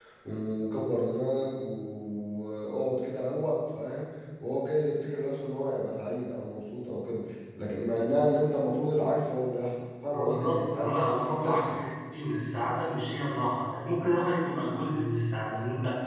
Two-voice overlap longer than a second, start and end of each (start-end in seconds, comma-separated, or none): 10.1-11.8